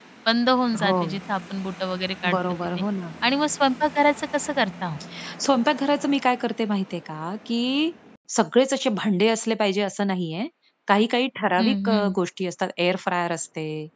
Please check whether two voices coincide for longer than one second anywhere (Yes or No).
No